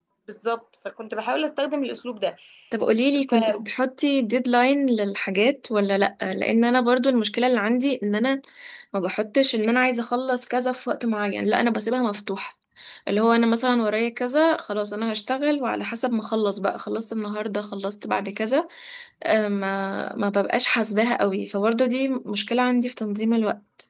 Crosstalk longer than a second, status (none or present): none